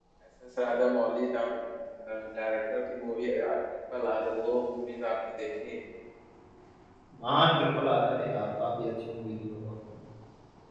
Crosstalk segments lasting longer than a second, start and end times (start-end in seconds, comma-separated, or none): none